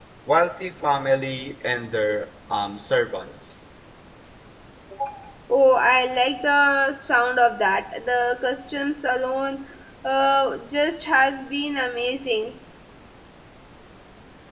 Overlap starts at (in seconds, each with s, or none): none